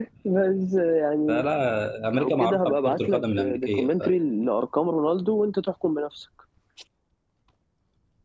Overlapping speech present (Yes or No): Yes